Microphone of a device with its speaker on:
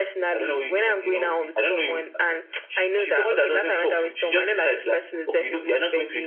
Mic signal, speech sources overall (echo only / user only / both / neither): echo only